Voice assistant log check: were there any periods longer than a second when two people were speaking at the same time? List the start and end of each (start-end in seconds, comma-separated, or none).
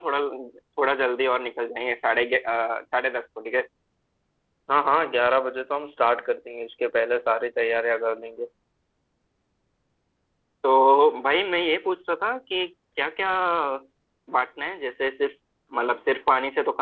none